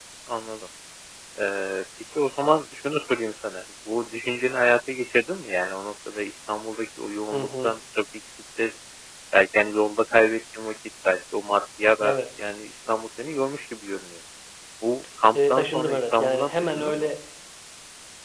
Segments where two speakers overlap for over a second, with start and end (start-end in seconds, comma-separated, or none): 15.3-17.1